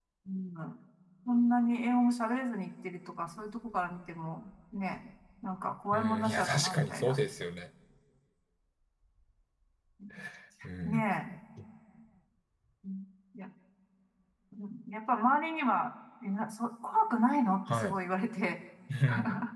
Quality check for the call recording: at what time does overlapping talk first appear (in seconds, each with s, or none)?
5.9 s